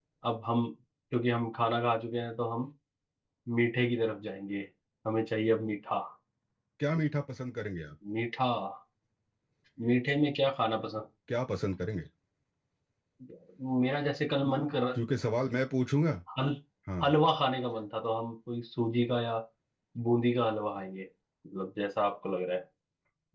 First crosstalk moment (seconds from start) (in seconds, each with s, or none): none